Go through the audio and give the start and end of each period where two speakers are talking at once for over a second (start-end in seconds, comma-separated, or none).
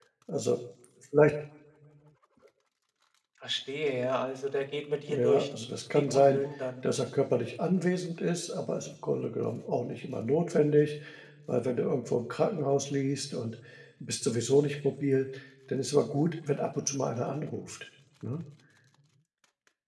none